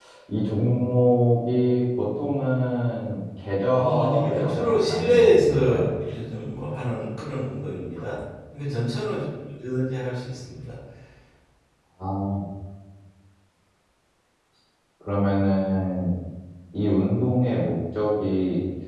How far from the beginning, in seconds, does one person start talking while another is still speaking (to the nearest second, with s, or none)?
4 s